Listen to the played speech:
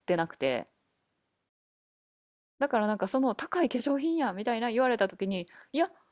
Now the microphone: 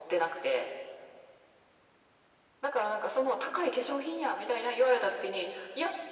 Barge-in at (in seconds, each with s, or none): none